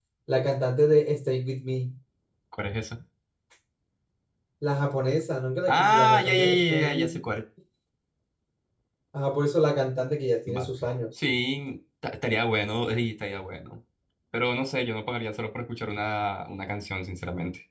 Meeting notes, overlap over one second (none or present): present